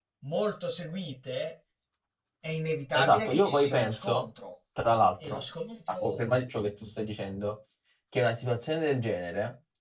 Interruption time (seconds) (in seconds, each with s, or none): 2.9 s